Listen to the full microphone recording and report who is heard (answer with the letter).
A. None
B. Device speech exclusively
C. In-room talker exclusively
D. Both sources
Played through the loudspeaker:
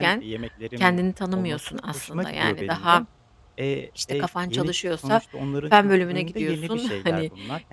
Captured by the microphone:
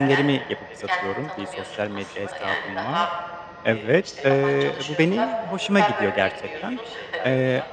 D